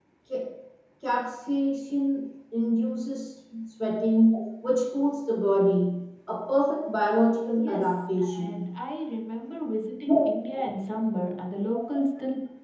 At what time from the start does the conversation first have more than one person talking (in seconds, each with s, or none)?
7.6 s